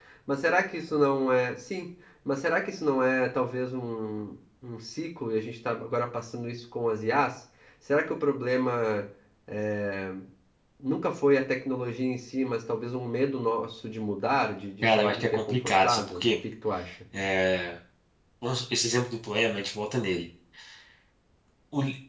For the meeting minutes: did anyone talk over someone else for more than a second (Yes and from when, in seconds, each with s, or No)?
Yes, from 14.8 s